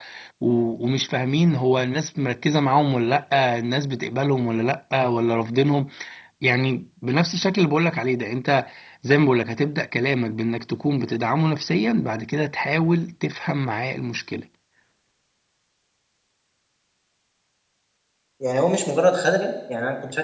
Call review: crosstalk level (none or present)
none